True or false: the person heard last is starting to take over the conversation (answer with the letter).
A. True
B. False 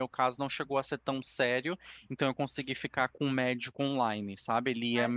A